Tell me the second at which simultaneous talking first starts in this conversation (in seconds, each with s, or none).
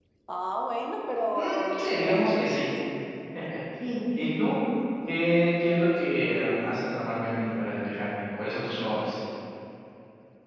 1.3 s